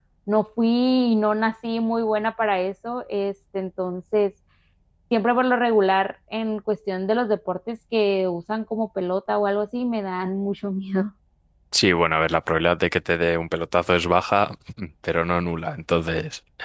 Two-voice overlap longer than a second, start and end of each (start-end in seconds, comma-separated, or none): none